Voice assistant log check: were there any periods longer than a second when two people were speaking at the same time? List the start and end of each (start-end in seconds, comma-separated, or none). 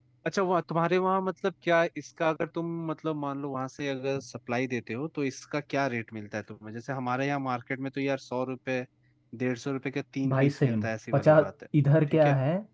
10.3-11.5